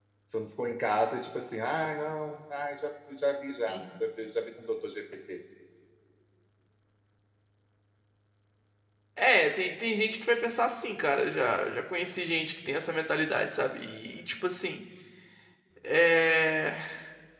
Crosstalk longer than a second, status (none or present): none